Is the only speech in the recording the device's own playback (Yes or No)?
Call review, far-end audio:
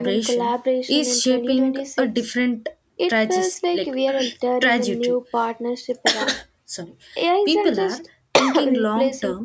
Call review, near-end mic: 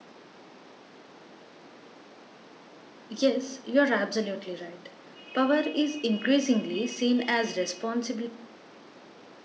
No